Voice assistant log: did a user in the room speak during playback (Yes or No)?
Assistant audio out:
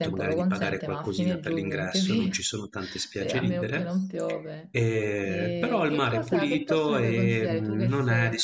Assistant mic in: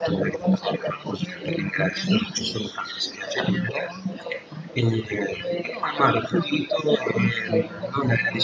Yes